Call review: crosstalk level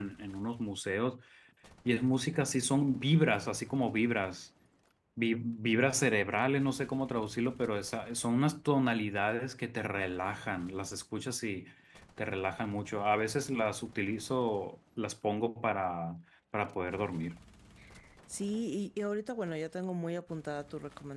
none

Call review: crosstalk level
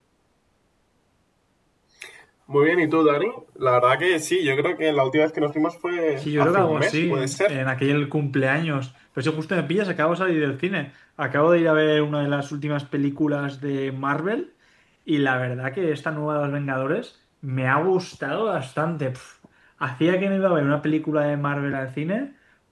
present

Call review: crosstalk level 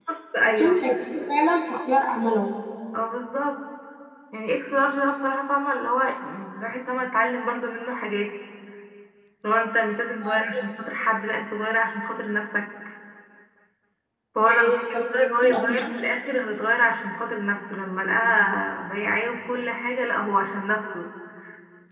present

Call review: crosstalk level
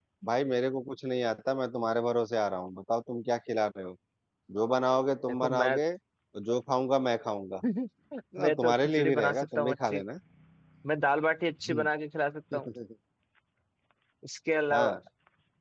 present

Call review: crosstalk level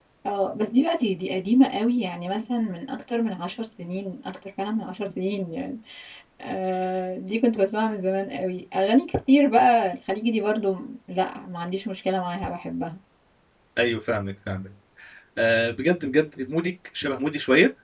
none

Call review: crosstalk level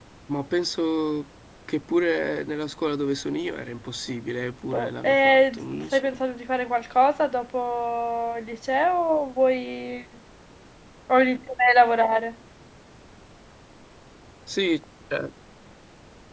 present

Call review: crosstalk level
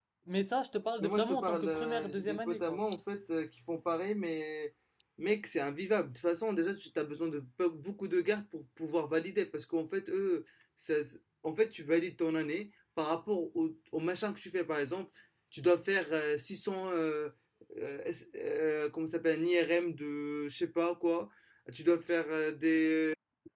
present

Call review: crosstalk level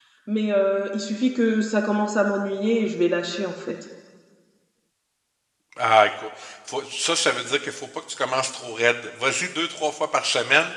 none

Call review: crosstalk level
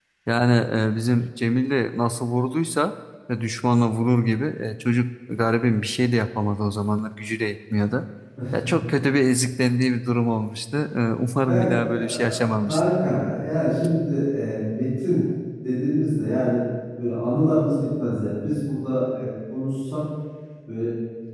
present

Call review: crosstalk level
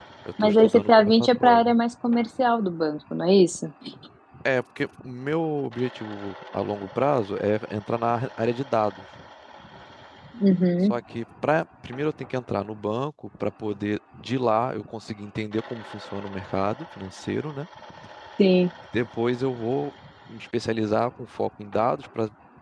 present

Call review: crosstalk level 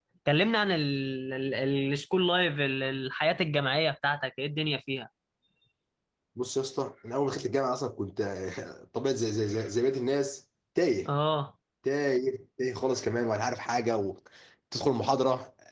none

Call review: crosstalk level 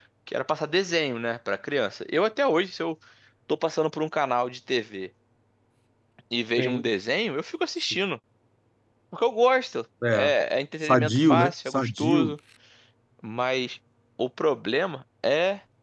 present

